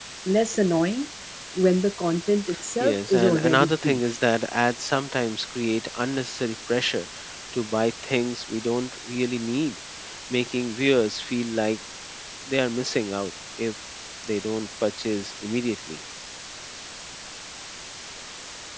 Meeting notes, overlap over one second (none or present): present